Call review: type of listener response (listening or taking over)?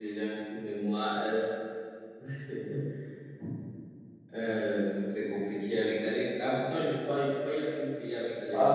taking over